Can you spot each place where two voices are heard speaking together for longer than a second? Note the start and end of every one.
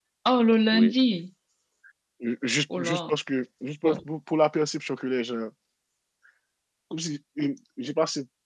none

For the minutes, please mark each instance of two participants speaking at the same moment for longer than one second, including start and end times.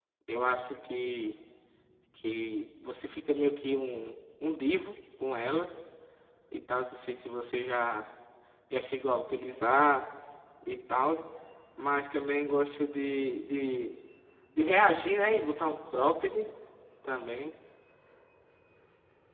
none

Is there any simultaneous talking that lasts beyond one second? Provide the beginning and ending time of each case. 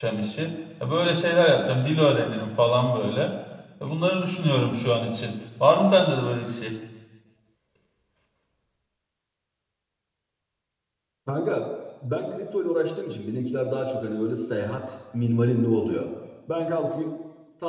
none

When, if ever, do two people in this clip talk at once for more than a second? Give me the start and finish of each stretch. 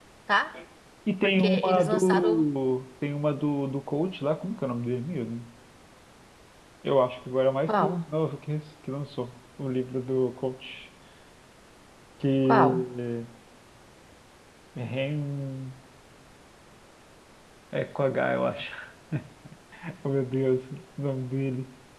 1.2-2.4

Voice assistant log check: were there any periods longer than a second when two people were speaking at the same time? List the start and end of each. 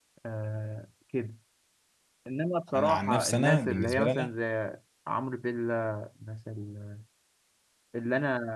2.7-4.3

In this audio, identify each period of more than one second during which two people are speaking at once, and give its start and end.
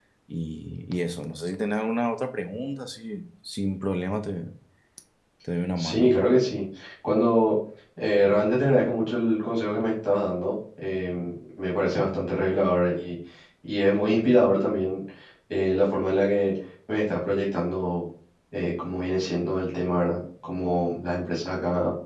none

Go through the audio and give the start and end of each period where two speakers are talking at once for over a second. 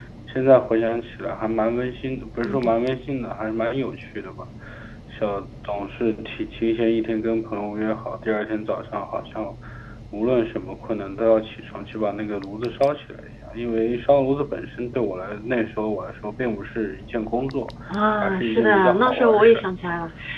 18.2-19.6

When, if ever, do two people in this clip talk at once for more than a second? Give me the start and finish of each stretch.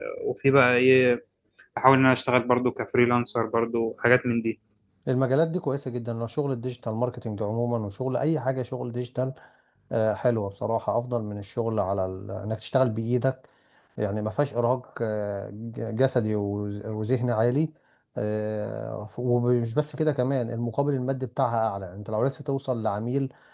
none

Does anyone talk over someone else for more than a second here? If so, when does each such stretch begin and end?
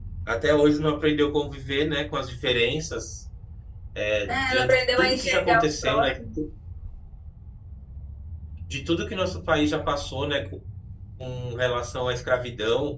4.3-6.1

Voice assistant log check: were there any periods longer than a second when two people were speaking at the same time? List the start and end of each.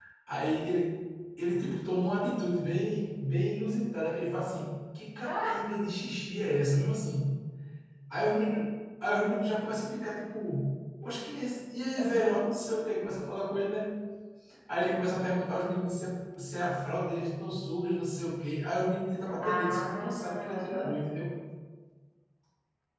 19.4-20.9

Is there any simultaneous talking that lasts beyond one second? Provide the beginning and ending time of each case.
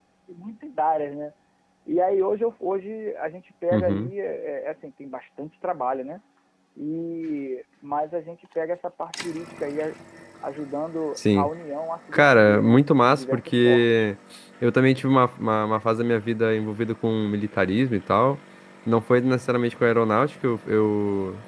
12.1-14.0

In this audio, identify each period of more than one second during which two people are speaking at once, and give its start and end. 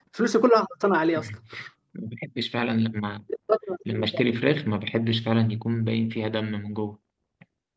none

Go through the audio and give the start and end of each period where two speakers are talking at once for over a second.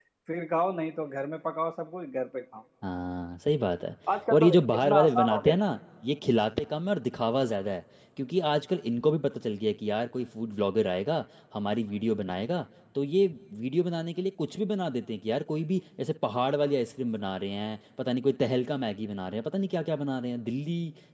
4.3-5.5

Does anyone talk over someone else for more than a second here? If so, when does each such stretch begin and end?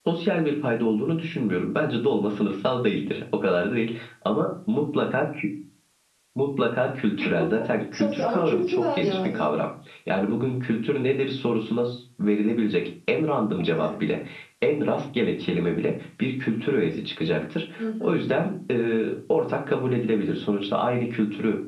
7.9-9.4

